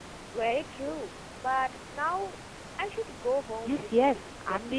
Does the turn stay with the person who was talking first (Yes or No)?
No